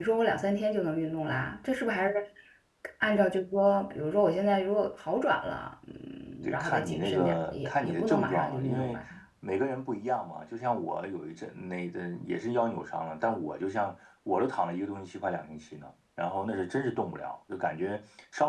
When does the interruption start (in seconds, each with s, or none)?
6.5 s